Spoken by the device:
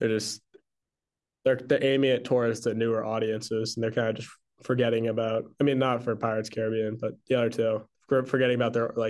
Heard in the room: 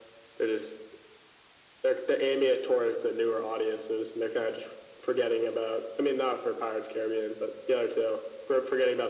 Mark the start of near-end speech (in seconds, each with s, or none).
none